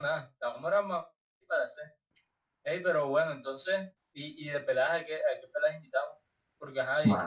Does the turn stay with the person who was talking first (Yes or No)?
Yes